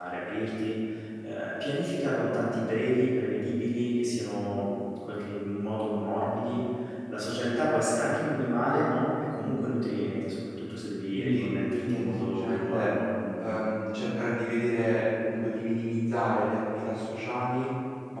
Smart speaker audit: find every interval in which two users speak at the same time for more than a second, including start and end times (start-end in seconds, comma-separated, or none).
11.1-12.9